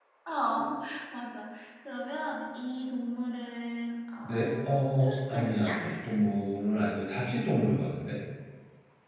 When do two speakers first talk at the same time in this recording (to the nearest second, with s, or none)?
4 s